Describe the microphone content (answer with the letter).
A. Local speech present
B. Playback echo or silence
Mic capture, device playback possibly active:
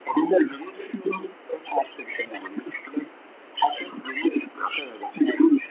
B